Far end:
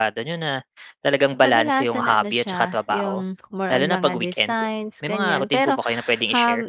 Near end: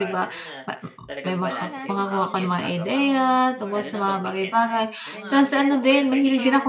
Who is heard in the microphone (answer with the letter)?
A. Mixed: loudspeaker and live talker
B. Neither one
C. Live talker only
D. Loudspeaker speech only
A